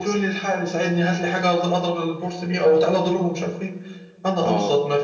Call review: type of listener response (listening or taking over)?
listening